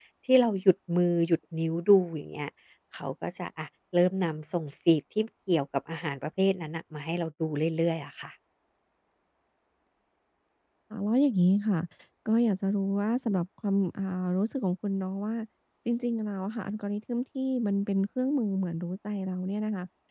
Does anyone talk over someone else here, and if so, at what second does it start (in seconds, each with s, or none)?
none